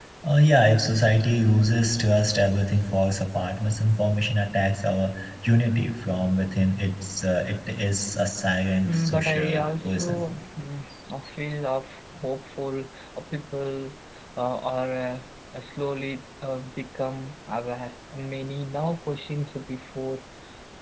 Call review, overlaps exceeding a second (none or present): present